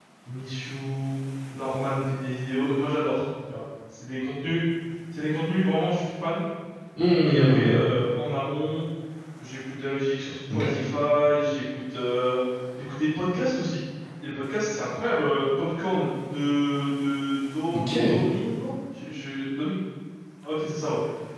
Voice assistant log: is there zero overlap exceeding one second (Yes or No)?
Yes